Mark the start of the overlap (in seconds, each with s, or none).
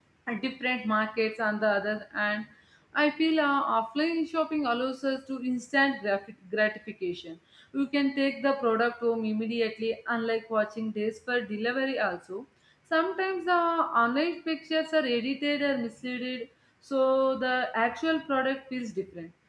none